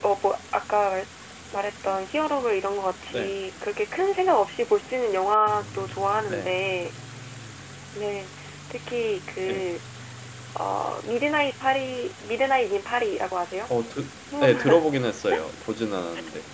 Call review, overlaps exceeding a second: none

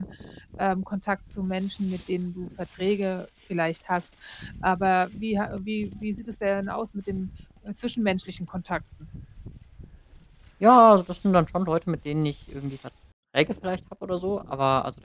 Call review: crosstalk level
none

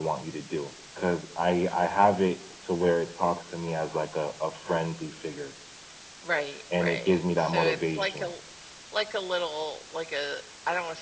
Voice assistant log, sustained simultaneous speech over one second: present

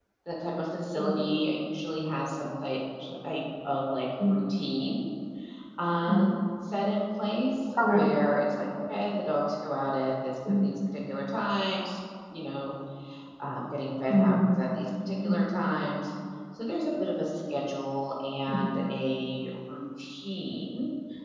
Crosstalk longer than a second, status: none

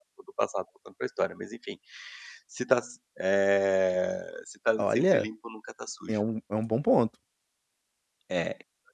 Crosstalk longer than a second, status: none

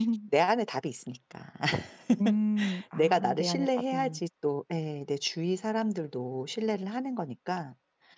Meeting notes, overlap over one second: present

